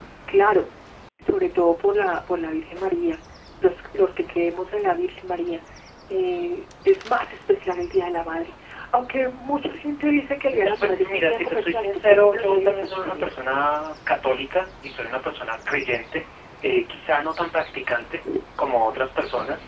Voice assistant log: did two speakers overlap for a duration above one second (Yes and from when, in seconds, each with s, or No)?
Yes, from 10.5 s